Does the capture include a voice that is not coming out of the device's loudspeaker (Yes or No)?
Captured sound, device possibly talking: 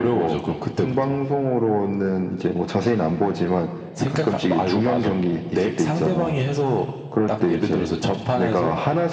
No